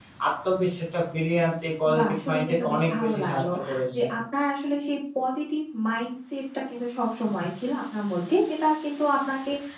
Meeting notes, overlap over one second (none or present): present